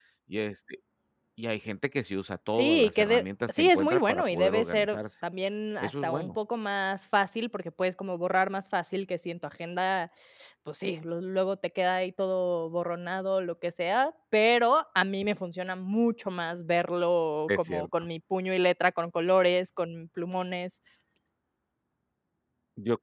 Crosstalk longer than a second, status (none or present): present